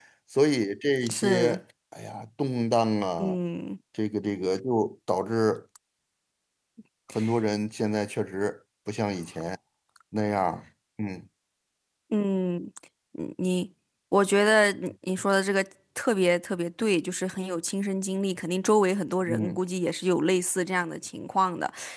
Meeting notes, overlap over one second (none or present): none